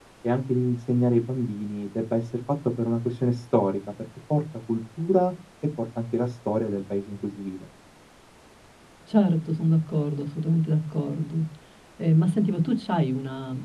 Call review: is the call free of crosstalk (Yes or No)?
Yes